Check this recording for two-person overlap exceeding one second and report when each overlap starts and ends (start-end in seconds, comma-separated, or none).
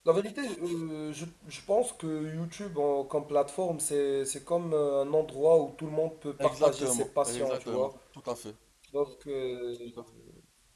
6.4-7.9